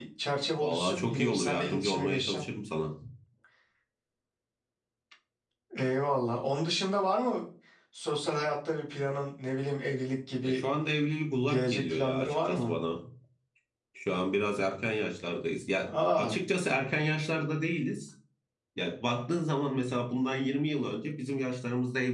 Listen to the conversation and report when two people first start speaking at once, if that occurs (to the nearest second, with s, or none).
1 s